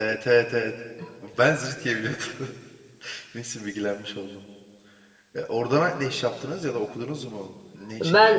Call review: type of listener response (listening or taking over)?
taking over